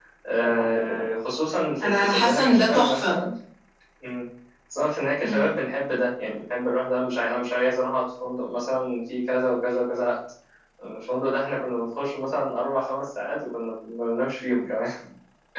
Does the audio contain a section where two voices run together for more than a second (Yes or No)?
Yes